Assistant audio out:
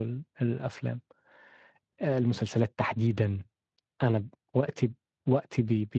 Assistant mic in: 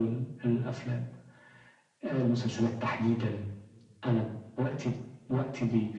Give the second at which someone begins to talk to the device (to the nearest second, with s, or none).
none